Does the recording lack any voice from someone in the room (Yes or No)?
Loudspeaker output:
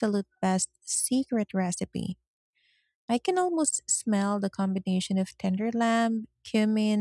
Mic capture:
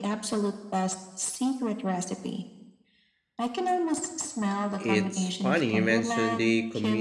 No